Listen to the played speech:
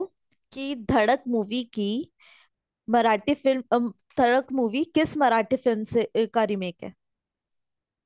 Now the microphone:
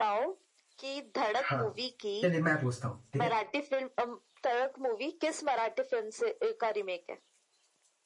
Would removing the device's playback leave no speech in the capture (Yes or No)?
No